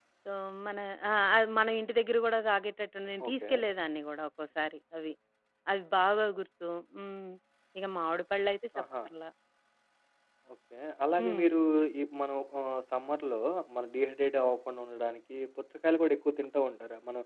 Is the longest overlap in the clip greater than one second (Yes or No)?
No